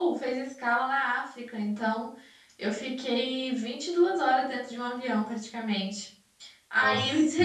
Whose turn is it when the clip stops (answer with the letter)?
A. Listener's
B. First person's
B